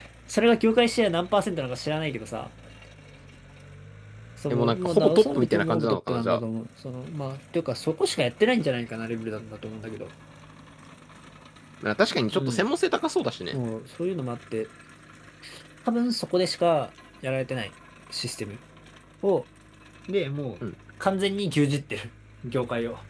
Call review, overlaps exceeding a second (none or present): present